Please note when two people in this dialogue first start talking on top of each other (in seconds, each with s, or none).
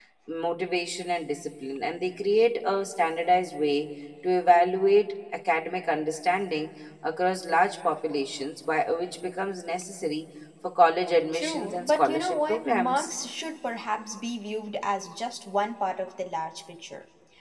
11.3 s